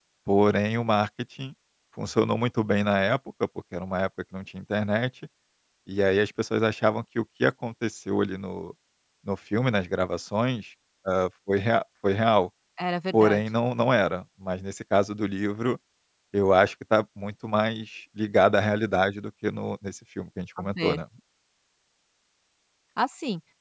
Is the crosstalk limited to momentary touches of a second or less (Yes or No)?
Yes